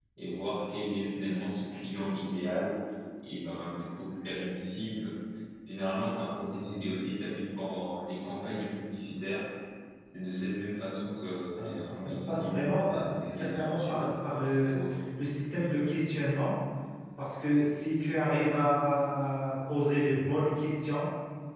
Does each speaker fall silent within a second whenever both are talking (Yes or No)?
No